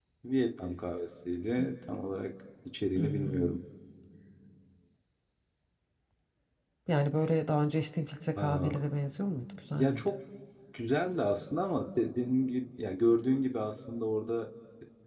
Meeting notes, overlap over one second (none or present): none